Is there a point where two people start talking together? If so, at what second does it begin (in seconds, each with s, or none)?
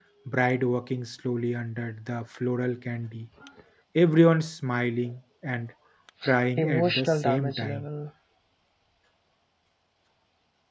6.6 s